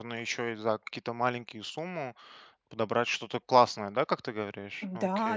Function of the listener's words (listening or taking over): taking over